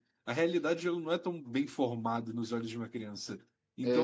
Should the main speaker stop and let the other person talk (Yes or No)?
No